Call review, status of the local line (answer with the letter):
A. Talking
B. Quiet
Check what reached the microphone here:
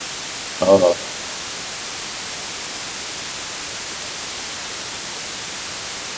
A